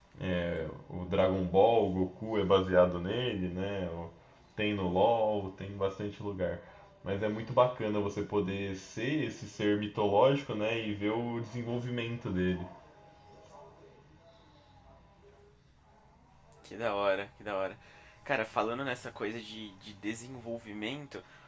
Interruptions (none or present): none